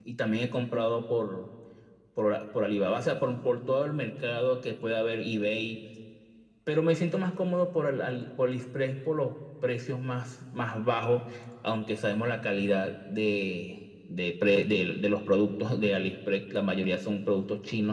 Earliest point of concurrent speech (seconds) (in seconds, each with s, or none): none